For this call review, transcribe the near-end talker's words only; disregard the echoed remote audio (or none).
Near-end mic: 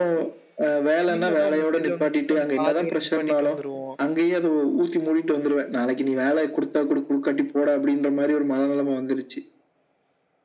திடீர்னு ஏதோ மெசேஜ் வந்துச்சுன்னா, அந்த பாதியோட நிப்பாட்டிட்டு வந்துருவோம்.